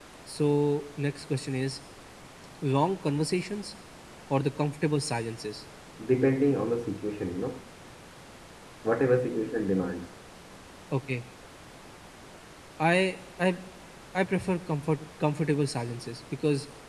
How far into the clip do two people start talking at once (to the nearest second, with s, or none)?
none